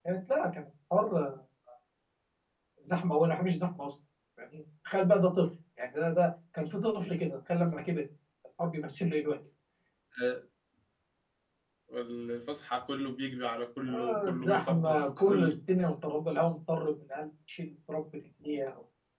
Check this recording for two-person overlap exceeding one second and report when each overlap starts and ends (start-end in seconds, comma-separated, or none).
13.9-15.5